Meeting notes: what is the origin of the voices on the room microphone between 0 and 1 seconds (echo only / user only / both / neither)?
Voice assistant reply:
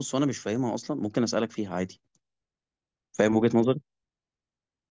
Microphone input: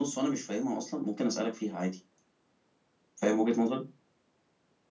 echo only